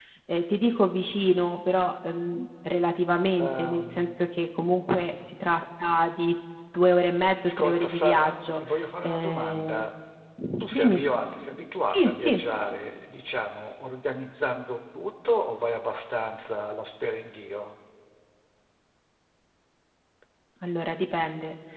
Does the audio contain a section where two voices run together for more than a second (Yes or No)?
Yes